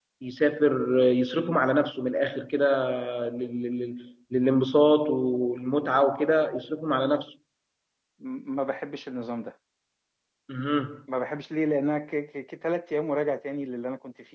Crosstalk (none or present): none